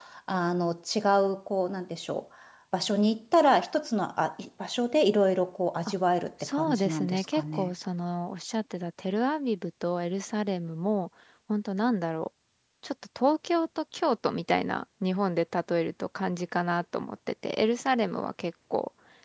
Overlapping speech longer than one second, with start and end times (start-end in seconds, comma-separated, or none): 6.4-7.7